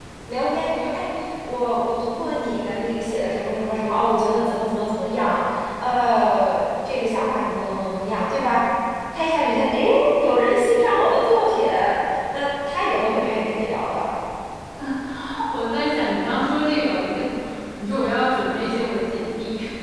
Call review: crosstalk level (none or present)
none